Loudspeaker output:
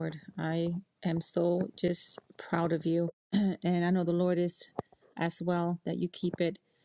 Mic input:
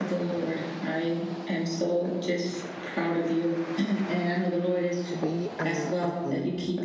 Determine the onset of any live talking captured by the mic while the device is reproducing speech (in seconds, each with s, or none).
5.1 s